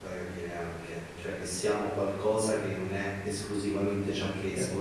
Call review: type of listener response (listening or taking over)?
taking over